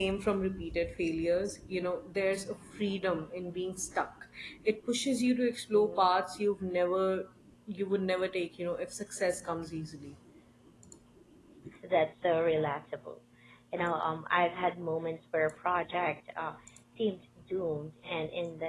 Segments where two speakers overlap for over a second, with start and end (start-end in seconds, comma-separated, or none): none